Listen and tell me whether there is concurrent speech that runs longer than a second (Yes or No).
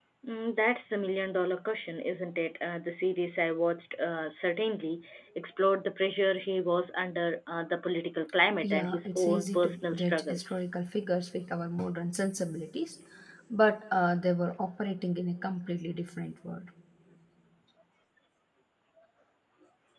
Yes